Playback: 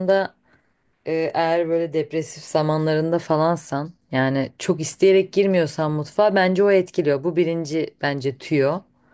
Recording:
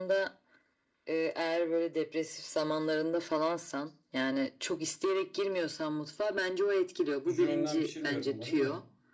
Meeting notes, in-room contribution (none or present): present